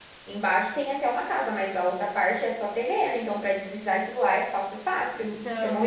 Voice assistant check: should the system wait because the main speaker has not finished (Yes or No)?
No